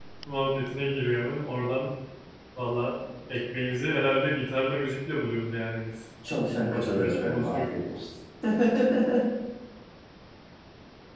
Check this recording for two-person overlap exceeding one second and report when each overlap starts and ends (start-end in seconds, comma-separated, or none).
6.5-7.7